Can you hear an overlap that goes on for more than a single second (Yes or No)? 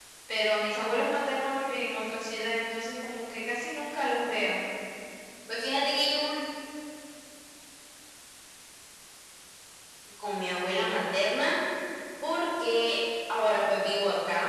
No